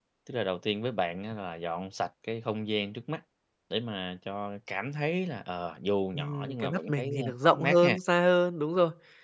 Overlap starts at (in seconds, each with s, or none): 6.1 s